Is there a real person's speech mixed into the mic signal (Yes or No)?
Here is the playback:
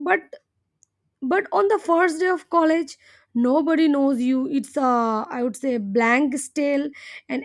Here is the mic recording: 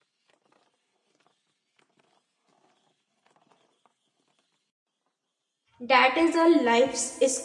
Yes